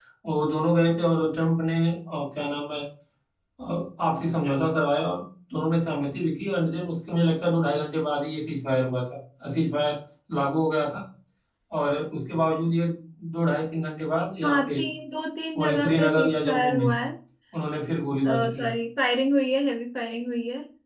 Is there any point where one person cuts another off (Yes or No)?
Yes